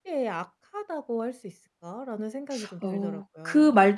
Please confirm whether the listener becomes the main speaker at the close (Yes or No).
Yes